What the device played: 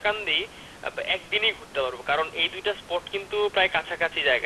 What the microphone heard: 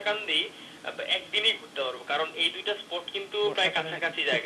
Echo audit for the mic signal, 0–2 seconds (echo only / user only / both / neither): echo only